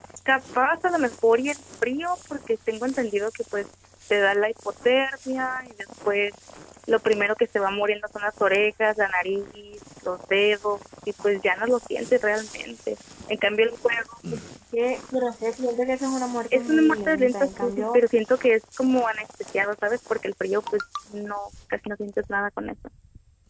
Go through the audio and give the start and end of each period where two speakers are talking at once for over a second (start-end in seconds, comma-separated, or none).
16.5-18.0